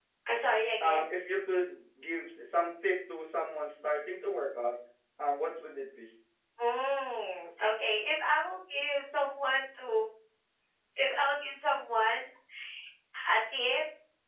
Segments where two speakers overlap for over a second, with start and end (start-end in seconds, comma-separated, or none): none